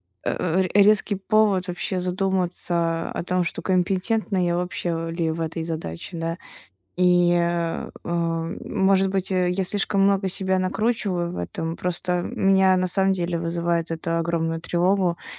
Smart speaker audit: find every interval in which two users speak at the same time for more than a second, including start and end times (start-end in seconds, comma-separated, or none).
none